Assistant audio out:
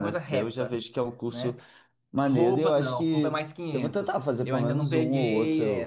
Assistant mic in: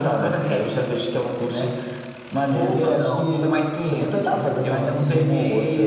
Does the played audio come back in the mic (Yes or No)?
Yes